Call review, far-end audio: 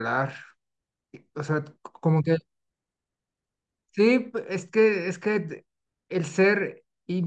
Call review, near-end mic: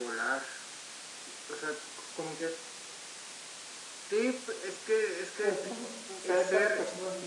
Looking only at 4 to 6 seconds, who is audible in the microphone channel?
both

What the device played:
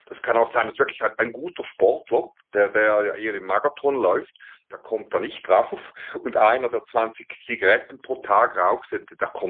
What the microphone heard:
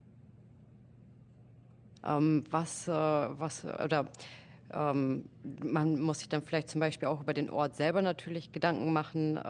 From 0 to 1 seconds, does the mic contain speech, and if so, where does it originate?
neither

